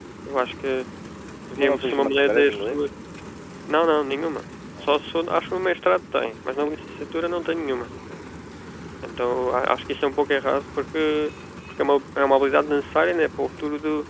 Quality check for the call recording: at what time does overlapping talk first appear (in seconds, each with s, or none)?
1.6 s